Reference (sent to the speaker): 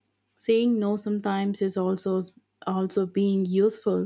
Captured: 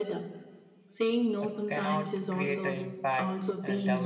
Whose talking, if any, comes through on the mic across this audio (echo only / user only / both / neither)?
both